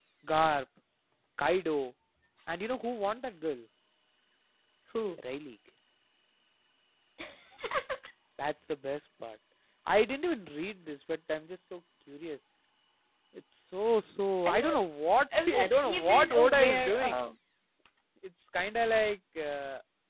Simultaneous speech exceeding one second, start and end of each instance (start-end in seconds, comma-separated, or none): 15.5-17.2